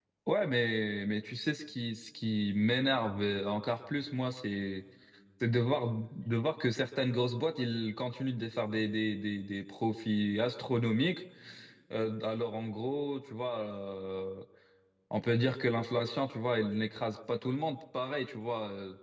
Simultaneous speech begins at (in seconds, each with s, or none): none